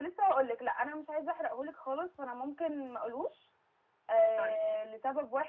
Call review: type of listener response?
listening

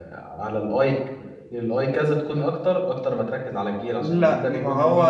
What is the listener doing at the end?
taking over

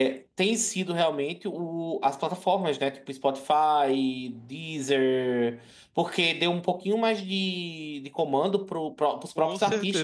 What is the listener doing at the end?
listening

